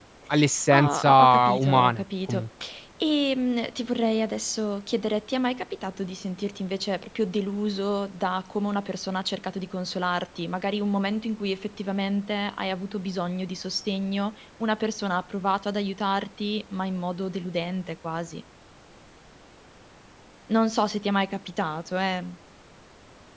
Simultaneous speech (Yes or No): Yes